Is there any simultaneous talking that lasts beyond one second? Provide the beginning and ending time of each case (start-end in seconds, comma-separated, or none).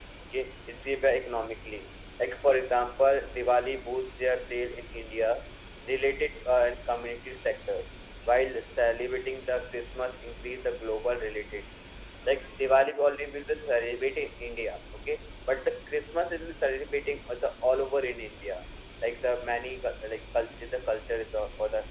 none